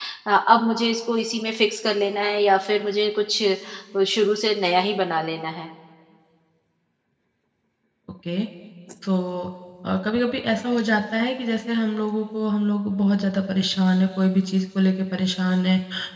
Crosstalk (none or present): none